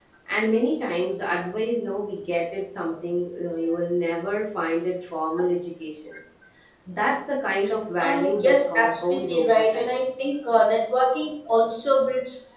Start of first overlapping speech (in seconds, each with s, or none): 8.0 s